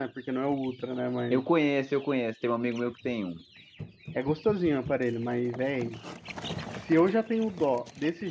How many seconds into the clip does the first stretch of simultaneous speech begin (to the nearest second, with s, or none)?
none